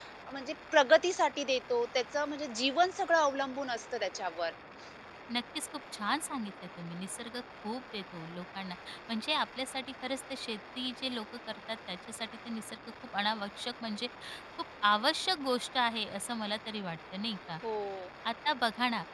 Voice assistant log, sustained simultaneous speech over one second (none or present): none